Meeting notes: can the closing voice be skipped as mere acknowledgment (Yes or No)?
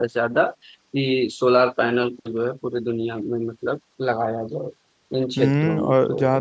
No